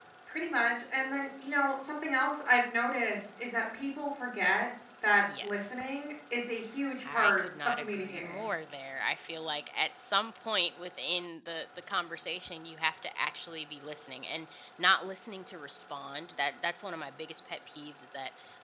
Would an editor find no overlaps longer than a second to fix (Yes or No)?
No